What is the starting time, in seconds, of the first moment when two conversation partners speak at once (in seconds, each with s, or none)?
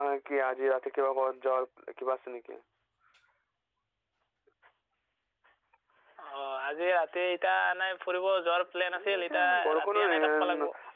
8.9 s